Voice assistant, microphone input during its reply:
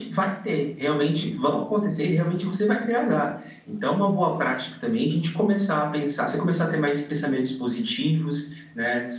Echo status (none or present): present